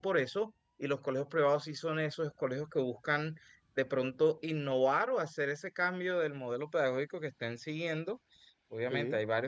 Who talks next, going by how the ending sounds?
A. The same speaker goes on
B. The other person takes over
A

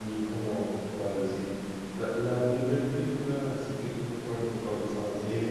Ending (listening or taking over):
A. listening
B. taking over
B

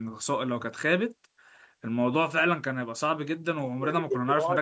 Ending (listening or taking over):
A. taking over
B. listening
A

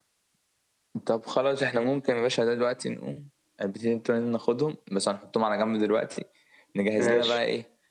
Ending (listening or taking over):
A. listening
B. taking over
A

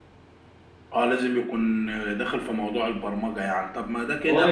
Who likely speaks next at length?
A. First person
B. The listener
B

